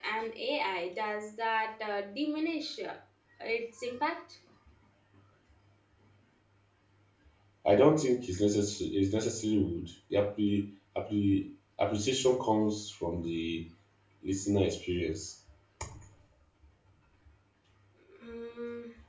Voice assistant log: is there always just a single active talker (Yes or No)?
Yes